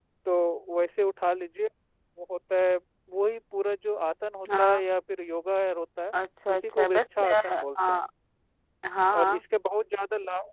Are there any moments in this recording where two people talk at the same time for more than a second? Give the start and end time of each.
6.5-8.0

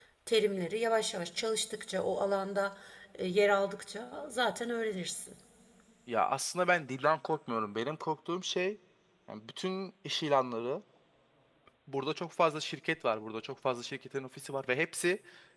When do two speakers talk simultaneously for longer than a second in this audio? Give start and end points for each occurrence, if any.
none

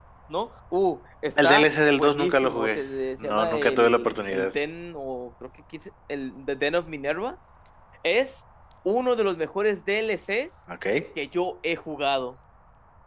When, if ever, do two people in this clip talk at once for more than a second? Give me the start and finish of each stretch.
1.4-2.8, 3.2-4.5

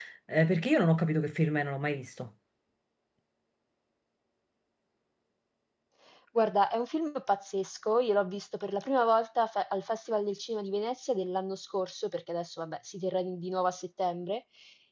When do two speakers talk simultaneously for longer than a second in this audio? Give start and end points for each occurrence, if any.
none

